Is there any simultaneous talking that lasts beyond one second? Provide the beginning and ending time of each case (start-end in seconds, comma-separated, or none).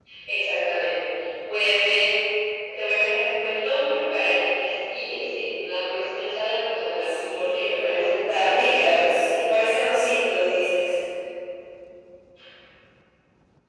7.0-9.0